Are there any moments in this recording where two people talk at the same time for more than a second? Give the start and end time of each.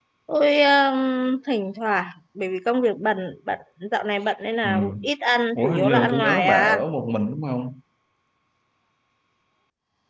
5.5-6.8

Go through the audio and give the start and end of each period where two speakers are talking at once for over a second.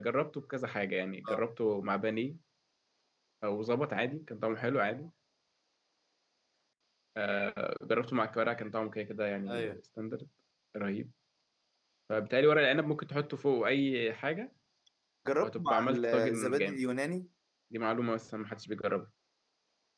15.4-16.8

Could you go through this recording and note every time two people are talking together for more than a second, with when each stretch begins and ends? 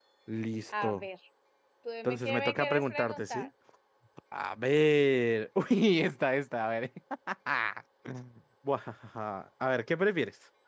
2.0-3.5

